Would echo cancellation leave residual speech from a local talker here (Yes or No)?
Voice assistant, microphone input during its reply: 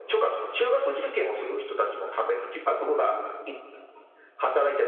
No